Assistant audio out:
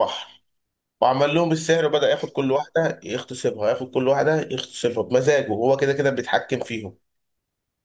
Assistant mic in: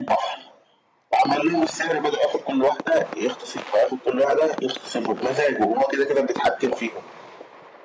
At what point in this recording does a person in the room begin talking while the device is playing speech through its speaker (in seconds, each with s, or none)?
none